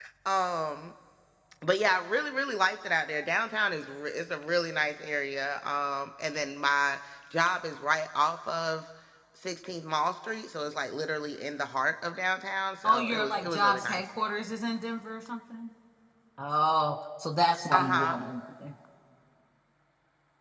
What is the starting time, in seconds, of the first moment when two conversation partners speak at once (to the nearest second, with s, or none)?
13 s